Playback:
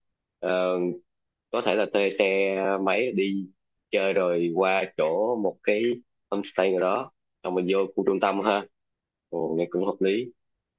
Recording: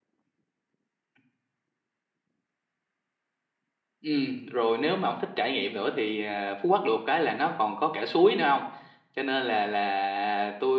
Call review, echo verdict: none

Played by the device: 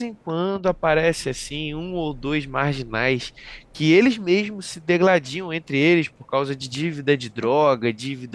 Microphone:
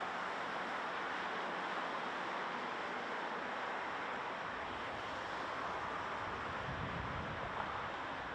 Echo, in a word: none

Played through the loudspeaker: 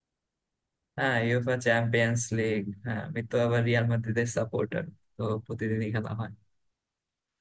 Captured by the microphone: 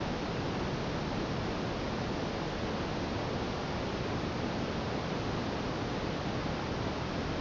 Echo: none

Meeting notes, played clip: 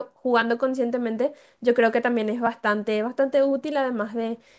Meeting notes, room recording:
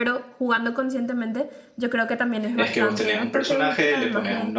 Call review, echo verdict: present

